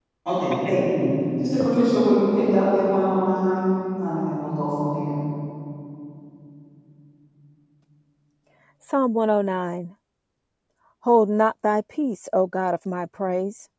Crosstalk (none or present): none